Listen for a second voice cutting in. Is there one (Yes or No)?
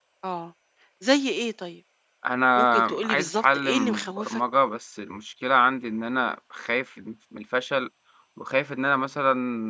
Yes